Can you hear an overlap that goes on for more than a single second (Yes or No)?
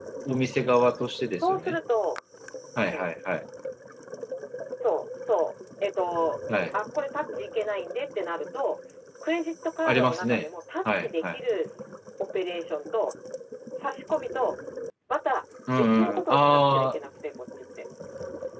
Yes